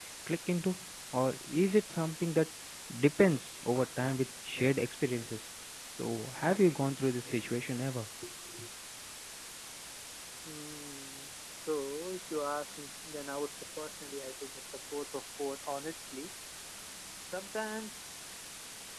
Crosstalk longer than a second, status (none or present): none